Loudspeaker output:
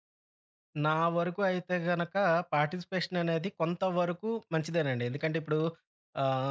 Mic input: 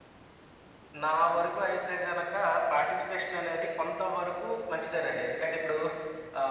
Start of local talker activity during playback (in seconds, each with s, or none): none